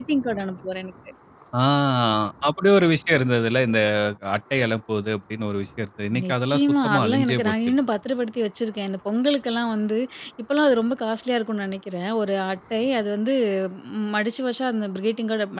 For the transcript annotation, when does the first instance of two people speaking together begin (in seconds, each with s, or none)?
6.1 s